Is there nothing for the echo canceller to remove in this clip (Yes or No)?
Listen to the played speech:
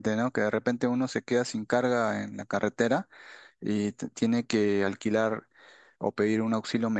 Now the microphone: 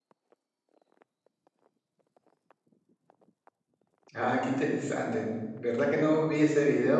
Yes